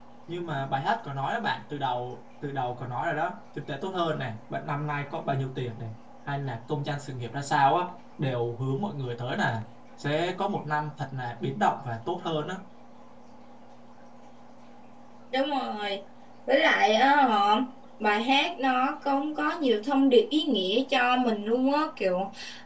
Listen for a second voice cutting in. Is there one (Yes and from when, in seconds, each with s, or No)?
No